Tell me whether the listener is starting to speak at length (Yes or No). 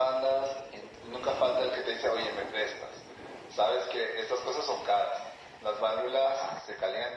No